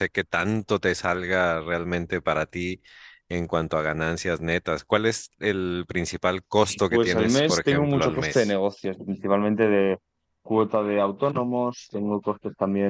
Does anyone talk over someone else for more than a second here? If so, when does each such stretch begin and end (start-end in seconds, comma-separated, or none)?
6.9-8.5